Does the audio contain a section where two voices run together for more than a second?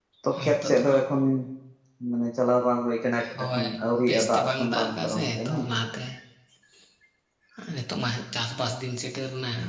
Yes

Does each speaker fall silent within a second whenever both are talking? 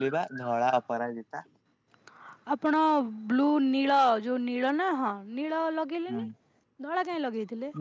Yes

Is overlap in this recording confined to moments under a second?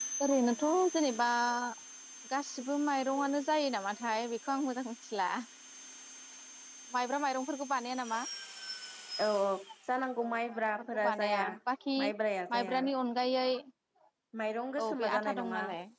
No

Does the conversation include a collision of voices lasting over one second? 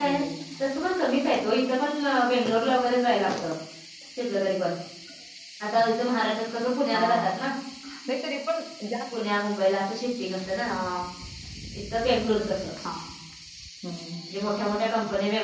No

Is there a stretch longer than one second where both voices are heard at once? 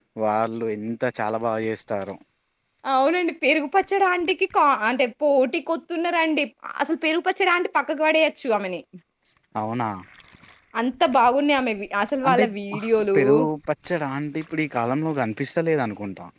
No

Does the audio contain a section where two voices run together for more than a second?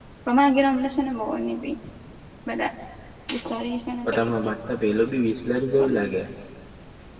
No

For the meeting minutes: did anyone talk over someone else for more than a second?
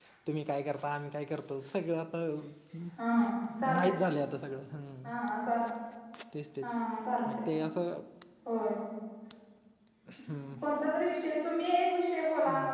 No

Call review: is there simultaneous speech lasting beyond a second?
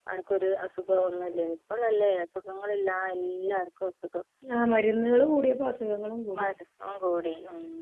No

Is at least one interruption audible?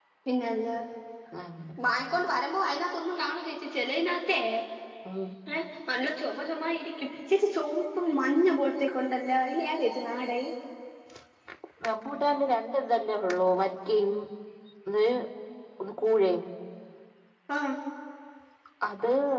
No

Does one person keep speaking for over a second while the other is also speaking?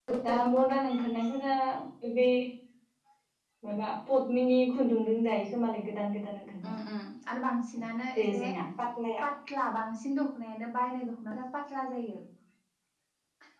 No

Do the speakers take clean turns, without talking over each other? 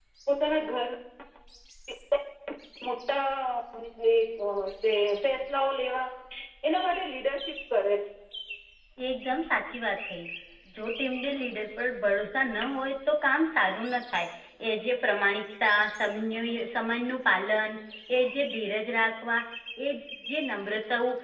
Yes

